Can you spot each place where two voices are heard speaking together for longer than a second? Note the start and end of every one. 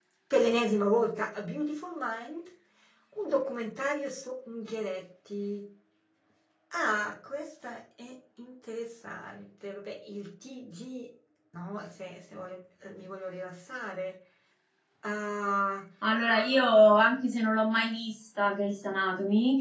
none

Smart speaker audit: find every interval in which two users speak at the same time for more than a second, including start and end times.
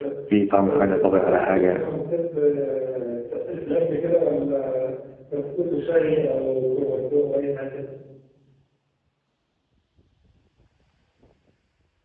0.6-1.9

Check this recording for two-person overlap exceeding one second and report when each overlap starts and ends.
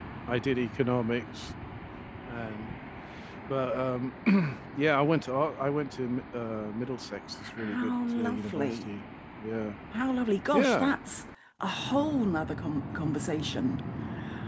7.6-8.8

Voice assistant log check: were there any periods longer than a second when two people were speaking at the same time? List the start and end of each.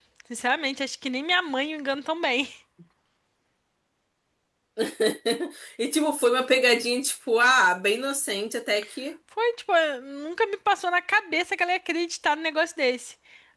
none

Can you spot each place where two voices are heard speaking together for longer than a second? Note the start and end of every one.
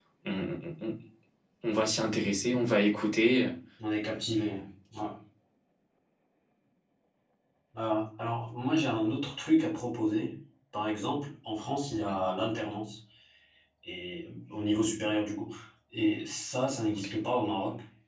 none

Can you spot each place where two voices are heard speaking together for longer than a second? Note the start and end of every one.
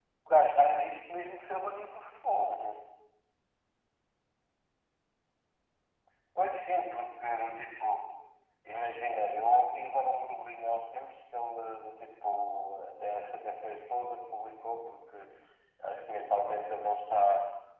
none

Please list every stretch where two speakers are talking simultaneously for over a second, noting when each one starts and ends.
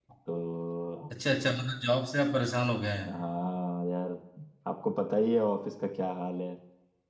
none

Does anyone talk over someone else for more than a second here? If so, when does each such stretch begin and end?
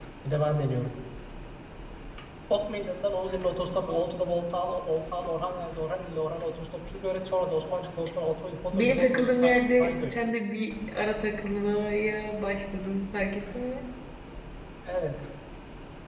8.7-10.1

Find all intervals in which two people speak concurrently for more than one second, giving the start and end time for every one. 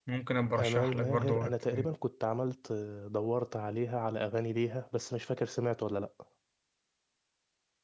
0.6-1.9

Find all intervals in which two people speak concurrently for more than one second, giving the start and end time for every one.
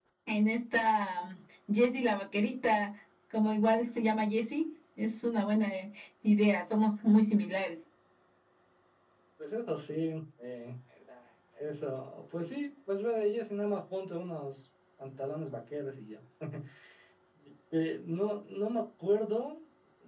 none

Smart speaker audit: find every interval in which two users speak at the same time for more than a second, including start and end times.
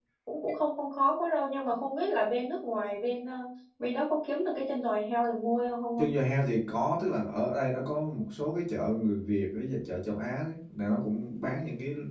none

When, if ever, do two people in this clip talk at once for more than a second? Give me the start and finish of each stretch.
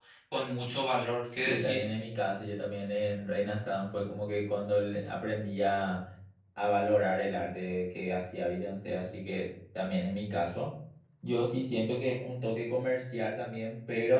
none

